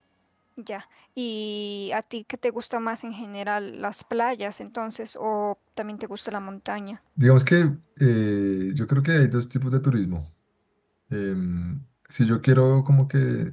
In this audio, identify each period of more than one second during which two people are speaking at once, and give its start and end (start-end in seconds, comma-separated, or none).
none